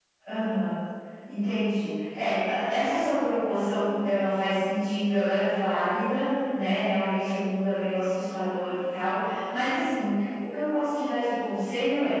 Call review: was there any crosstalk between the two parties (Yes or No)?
No